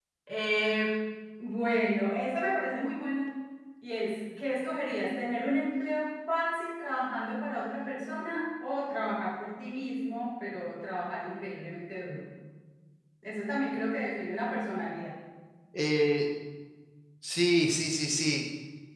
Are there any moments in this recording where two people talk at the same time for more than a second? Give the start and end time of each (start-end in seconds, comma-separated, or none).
none